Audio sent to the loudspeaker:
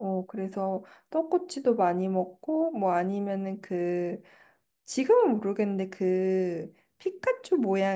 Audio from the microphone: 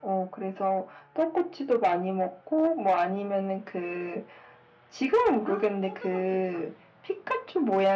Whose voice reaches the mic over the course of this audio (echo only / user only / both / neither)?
both